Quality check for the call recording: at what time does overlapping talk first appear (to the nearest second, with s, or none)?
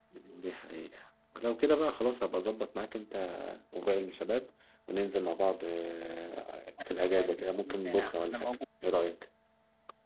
7 s